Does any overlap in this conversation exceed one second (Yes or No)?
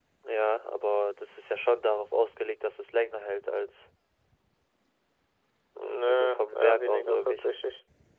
Yes